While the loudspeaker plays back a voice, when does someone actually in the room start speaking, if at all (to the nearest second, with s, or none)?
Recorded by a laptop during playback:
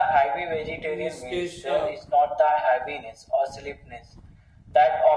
1 s